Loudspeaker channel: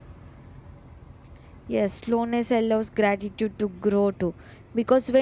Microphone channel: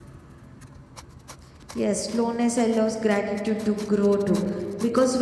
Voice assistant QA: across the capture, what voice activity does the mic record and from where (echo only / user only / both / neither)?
echo only